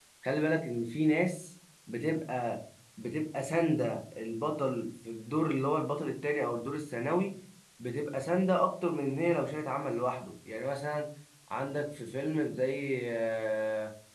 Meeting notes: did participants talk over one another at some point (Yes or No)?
No